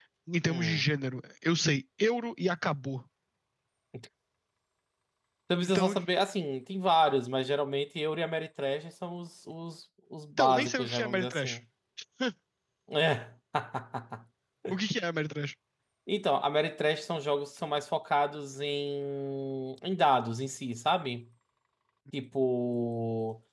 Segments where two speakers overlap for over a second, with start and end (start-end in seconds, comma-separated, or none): 10.4-11.6